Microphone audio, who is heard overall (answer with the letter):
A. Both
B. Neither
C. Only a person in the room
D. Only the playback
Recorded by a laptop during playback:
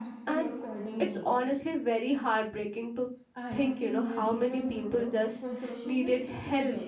A